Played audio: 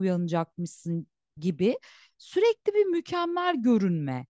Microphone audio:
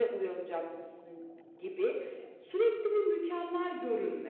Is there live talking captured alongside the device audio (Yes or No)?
No